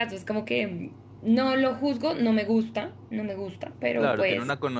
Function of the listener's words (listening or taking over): taking over